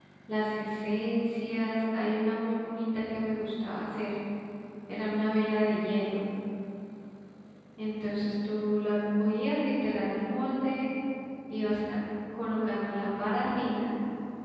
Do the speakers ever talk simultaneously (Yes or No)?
No